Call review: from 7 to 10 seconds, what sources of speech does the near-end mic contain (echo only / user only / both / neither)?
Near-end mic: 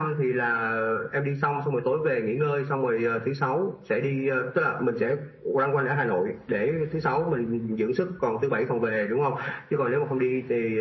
echo only